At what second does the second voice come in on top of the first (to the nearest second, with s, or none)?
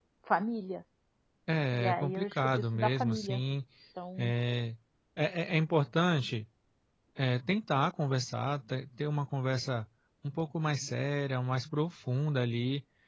2 s